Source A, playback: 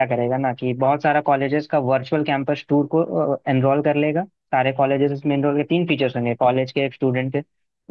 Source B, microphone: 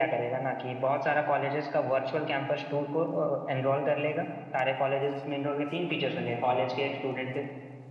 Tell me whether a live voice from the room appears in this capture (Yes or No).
No